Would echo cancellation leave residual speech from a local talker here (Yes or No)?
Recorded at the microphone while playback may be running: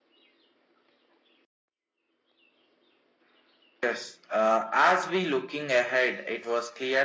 No